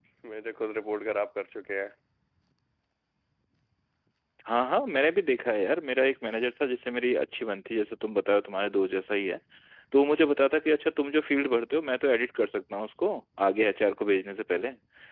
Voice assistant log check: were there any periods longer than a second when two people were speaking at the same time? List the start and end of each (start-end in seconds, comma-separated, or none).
none